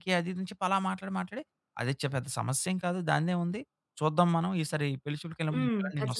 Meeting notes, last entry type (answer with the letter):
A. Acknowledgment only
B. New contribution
B